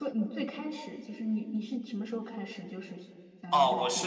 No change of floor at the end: No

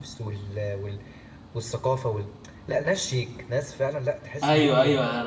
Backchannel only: No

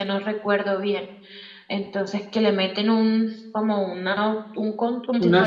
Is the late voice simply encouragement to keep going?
Yes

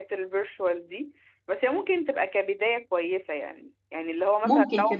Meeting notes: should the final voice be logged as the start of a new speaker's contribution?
No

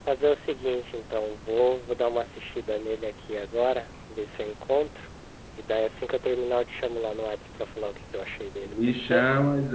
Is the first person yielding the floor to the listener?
Yes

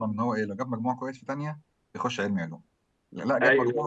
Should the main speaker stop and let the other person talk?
No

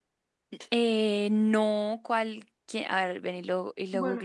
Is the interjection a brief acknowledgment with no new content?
No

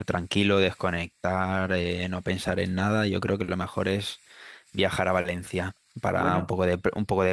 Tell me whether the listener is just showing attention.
Yes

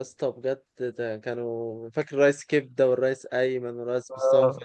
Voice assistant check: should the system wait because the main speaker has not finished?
No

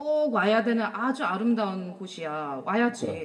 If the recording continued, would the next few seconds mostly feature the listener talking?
Yes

